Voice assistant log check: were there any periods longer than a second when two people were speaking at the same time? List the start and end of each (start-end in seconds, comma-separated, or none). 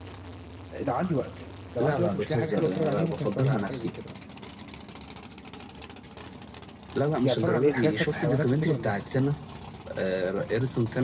1.8-3.9, 7.2-9.2